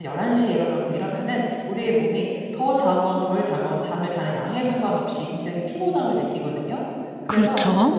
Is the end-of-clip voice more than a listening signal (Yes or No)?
No